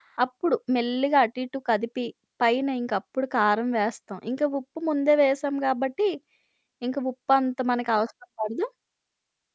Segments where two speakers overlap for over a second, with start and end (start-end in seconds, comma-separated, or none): none